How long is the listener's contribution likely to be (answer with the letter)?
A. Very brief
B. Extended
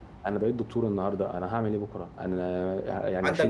B